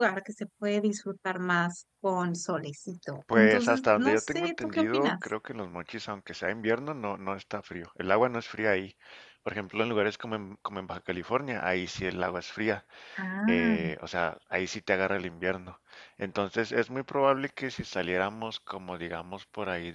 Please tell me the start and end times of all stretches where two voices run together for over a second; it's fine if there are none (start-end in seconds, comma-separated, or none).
3.3-5.1